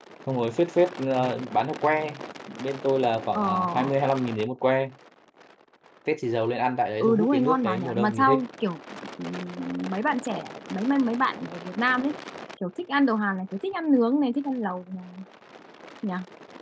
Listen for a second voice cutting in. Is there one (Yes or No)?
Yes